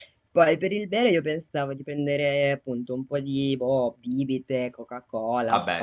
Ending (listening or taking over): listening